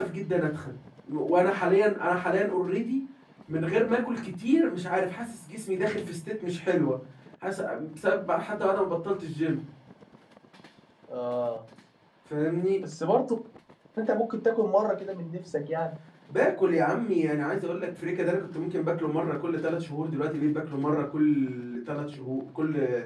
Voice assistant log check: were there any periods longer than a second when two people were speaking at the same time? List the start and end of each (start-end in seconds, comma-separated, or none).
none